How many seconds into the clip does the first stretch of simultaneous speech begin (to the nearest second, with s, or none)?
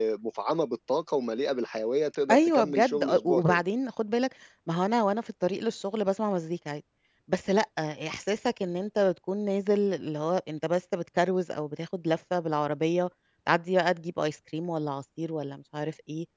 2 s